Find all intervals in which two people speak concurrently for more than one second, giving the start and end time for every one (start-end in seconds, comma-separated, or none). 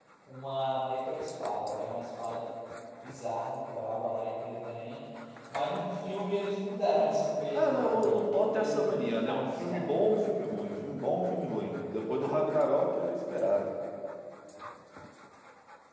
7.5-9.8